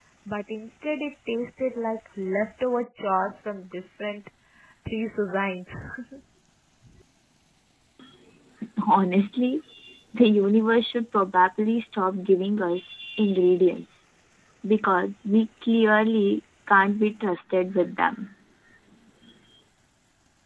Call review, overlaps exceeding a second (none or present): none